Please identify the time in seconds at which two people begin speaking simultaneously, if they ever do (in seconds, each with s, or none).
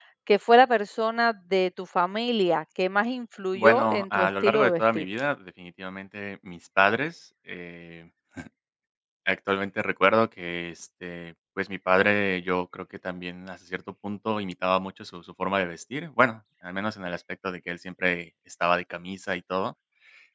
3.5 s